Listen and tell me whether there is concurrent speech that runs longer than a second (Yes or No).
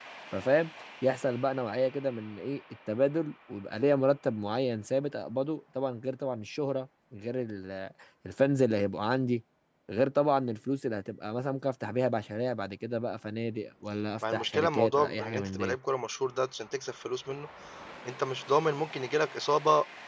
Yes